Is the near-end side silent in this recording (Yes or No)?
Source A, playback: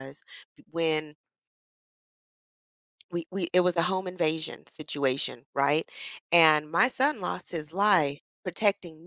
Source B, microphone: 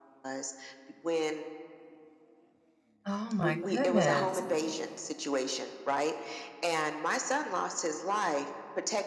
No